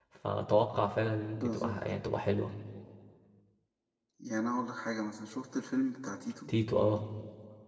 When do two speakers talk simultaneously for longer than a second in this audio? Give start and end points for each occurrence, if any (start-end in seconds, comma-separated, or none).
none